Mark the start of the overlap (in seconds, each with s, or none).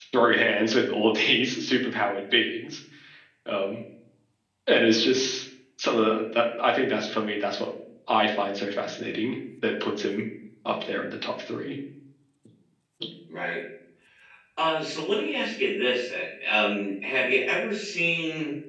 none